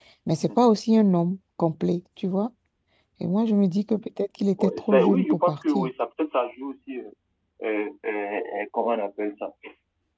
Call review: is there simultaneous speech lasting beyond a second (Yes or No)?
Yes